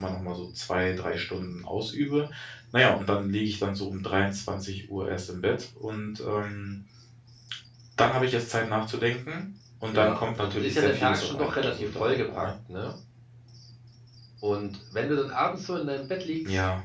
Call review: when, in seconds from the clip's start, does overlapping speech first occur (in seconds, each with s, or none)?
9.9 s